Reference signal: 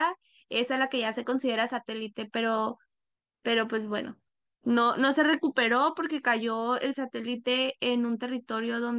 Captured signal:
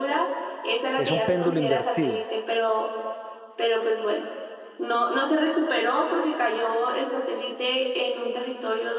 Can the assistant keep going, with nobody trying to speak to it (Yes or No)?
No